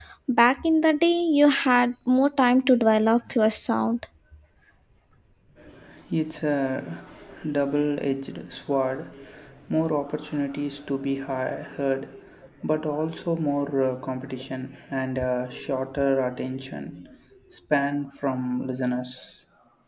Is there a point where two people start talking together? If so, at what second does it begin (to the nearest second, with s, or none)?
none